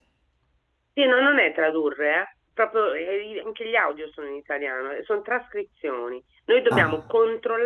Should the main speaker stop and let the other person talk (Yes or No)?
No